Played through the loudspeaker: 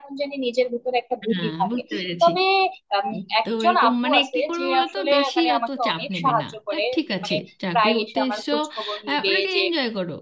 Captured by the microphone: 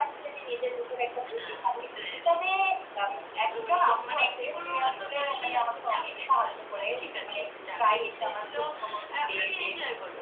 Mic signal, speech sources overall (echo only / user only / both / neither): echo only